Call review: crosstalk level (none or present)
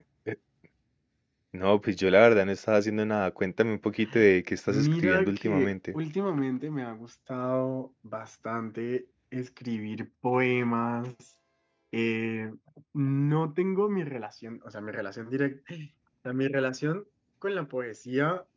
present